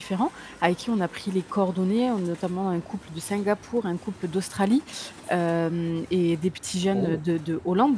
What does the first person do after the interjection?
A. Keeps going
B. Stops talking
A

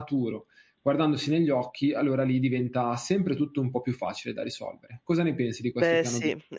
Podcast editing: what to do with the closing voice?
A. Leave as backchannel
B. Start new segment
B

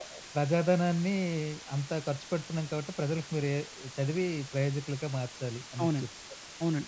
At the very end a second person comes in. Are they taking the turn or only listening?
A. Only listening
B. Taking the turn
B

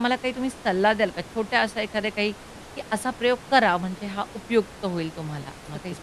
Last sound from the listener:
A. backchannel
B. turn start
B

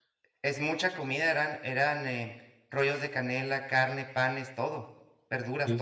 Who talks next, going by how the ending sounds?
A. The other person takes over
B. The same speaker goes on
A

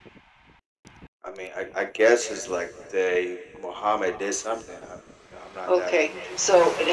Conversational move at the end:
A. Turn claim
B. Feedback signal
A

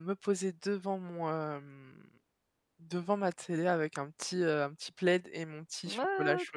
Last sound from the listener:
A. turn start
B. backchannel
A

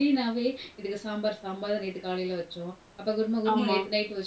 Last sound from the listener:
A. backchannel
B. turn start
A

